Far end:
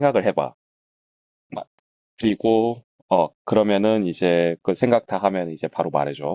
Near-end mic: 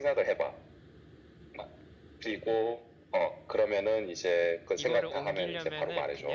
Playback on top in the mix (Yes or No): Yes